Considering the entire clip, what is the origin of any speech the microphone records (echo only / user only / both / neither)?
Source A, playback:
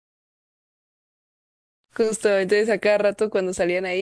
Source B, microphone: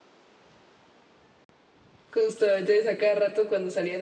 echo only